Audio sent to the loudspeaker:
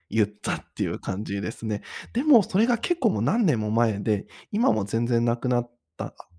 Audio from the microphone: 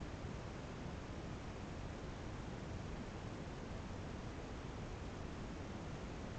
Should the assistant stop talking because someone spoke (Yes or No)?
No